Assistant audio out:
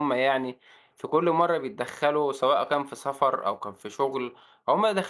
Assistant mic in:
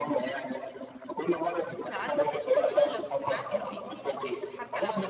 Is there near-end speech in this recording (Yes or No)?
Yes